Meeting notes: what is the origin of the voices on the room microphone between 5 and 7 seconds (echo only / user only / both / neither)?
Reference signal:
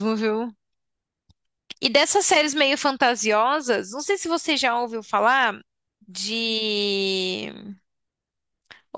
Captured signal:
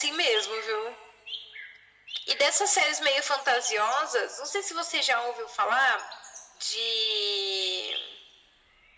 echo only